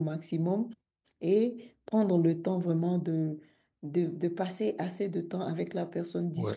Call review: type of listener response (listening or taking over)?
listening